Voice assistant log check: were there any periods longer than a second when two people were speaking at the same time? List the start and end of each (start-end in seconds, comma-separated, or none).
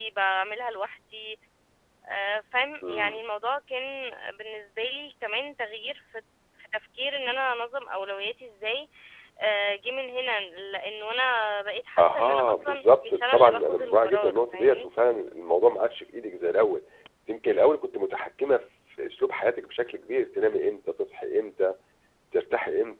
12.0-14.9